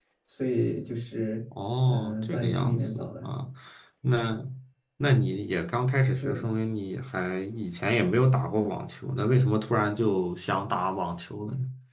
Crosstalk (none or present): present